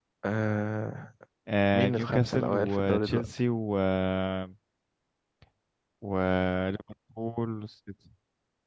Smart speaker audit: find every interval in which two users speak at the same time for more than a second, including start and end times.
1.7-3.3

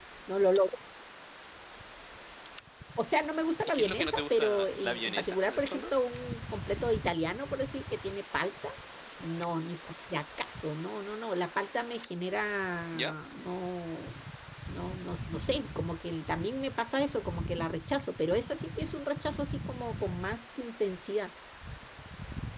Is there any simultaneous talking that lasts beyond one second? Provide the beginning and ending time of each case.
3.7-5.9

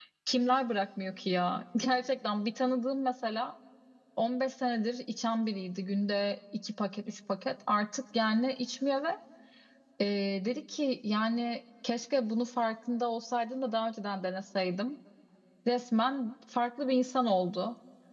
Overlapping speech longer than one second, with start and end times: none

